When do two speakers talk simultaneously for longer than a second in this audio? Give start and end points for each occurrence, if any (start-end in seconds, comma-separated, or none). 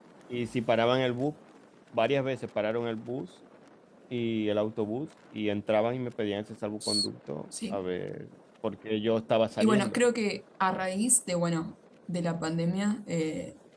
none